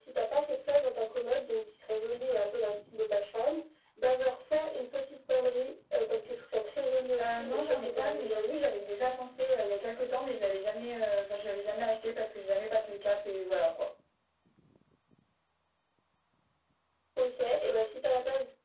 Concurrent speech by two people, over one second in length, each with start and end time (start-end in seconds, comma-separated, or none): 7.2-8.6